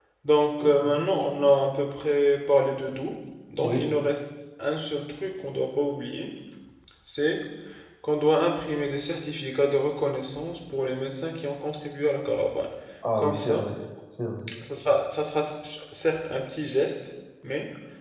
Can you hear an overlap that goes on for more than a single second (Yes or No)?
No